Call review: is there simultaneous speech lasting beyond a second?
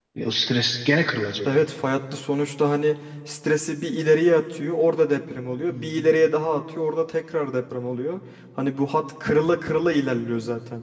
No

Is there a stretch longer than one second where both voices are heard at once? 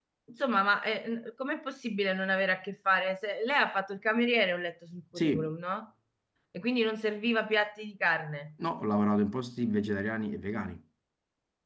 No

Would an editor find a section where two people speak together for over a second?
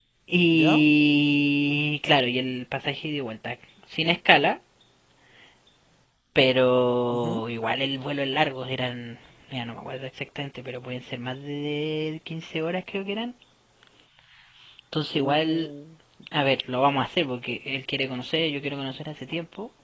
No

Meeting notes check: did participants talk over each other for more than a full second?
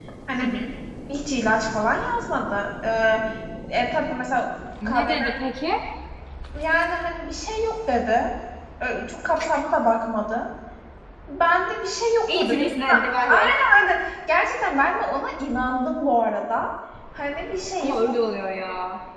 No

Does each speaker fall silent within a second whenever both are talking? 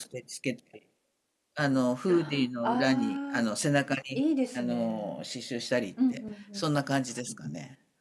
No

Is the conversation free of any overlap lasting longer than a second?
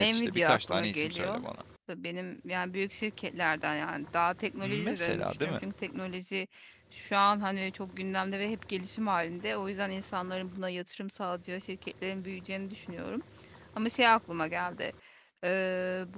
No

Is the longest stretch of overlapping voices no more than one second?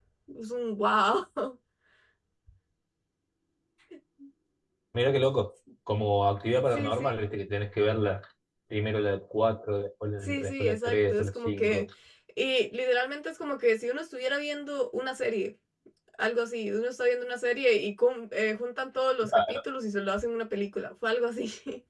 No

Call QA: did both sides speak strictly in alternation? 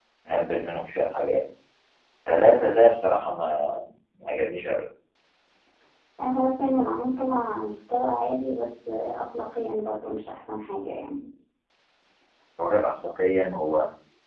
Yes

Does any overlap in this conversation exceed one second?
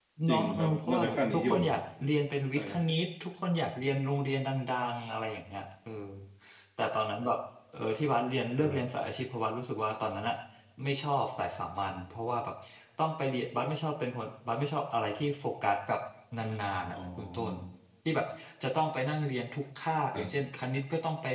Yes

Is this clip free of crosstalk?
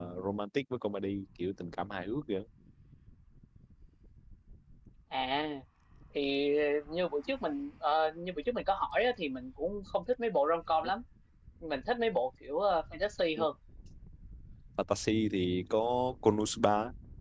Yes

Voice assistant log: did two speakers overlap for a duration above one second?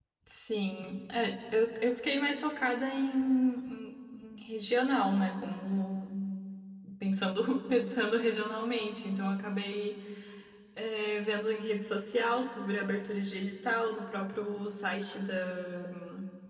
No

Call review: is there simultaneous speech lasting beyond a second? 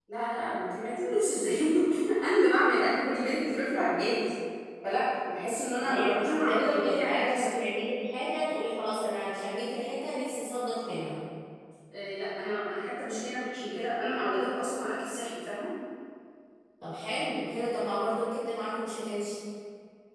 Yes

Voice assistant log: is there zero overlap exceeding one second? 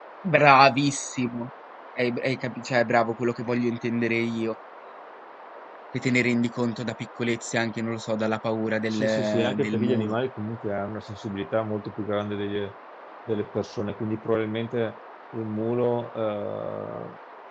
No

